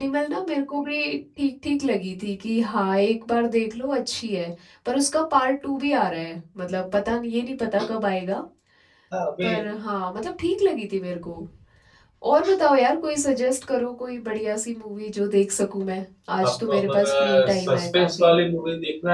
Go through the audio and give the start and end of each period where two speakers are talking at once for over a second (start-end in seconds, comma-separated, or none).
16.4-18.4